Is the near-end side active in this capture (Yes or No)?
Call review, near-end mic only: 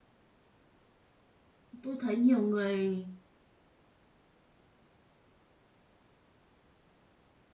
Yes